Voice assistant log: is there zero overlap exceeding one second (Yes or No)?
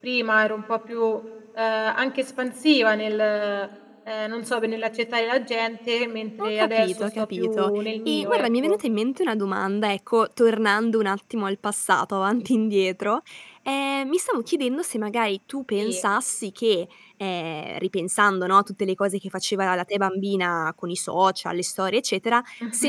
No